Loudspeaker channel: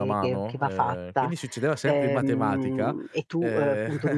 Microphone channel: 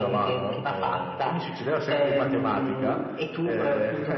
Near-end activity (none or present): none